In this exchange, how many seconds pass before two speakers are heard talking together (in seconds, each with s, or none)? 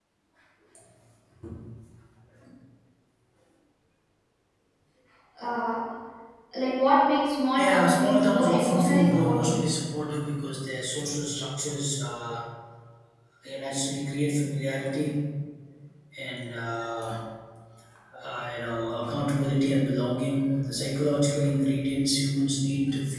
7.6 s